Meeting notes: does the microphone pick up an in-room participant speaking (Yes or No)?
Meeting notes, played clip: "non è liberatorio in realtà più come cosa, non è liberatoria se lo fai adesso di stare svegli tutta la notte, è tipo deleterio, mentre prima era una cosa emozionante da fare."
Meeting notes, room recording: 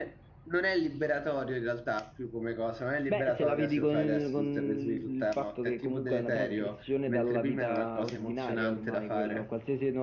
Yes